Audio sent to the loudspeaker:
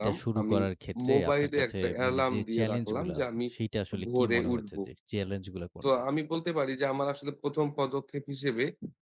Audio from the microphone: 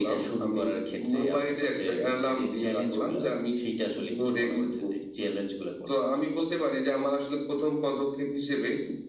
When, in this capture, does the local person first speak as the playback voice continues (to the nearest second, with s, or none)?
none